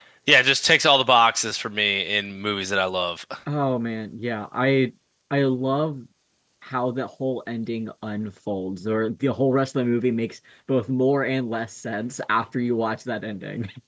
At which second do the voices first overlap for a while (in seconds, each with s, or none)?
none